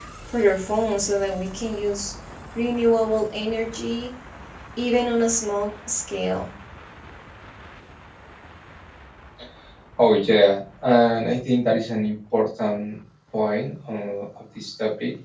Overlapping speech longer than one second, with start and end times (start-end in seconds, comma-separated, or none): none